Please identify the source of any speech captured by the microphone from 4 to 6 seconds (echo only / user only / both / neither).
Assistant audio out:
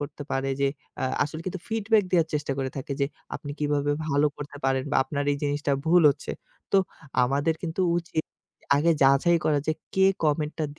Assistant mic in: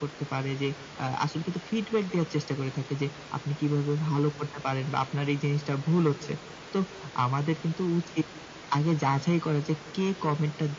echo only